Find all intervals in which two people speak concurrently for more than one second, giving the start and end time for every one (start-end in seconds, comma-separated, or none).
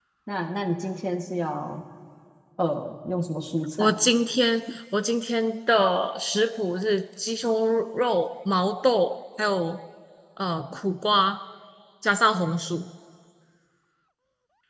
none